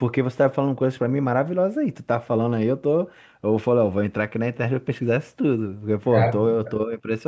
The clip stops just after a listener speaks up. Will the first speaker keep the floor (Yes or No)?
Yes